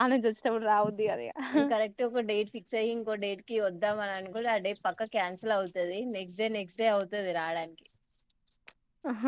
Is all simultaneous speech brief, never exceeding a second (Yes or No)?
Yes